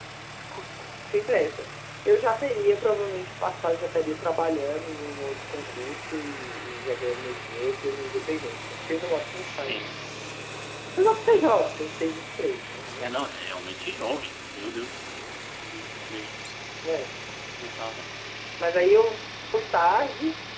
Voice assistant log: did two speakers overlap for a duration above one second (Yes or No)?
No